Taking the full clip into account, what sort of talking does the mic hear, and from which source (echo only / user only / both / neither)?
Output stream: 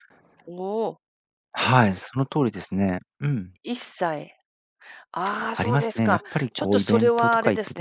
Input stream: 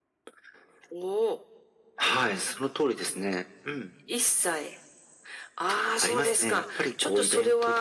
echo only